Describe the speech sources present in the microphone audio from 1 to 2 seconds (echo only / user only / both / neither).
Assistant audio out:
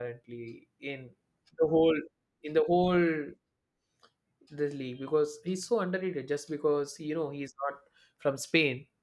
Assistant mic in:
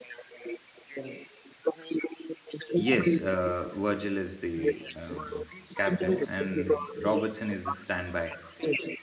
echo only